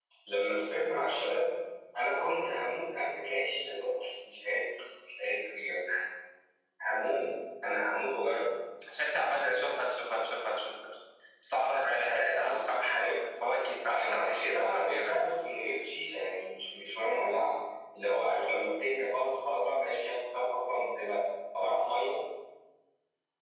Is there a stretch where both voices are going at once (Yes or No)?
Yes